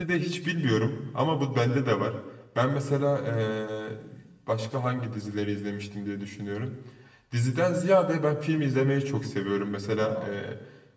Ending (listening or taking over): listening